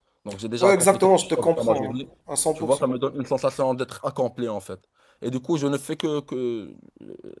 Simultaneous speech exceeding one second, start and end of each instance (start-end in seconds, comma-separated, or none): 0.6-1.9